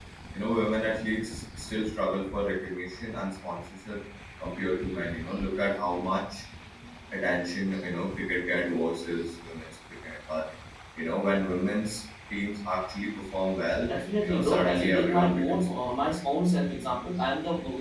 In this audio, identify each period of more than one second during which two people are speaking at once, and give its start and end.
13.9-16.2

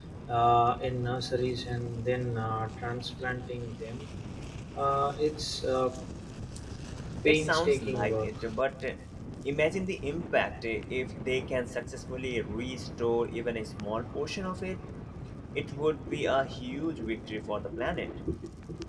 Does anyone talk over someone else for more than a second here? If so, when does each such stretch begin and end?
7.2-8.5

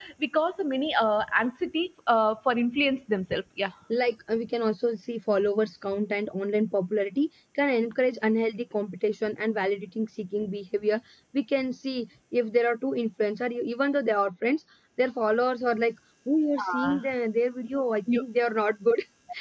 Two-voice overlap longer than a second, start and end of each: none

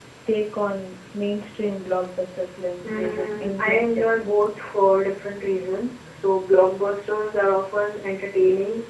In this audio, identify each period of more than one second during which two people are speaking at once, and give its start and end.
2.8-4.2

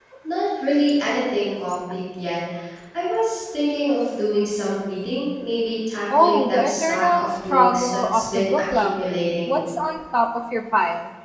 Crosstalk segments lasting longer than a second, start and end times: 6.2-9.6

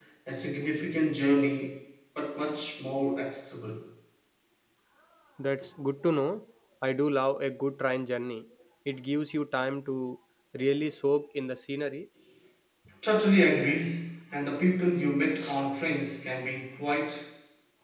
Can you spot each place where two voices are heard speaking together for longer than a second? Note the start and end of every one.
none

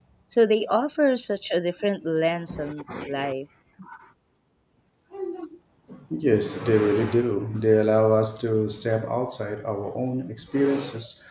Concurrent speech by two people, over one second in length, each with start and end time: none

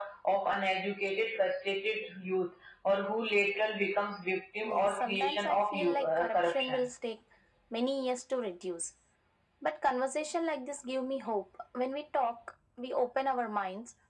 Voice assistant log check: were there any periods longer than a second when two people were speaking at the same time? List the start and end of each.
4.6-6.9

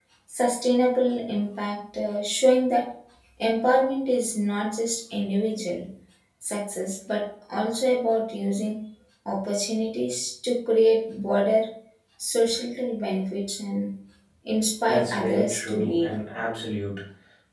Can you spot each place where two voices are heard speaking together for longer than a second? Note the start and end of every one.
14.9-16.2

